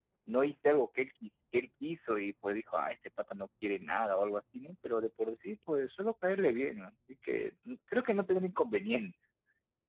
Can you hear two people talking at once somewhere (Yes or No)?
No